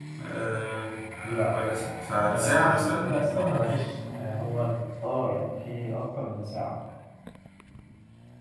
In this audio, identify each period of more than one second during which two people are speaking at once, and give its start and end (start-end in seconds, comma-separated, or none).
2.2-3.7